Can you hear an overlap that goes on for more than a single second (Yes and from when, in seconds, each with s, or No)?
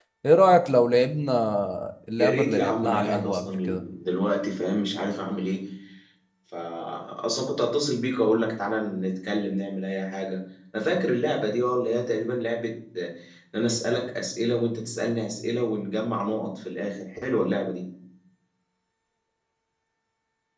Yes, from 2.2 s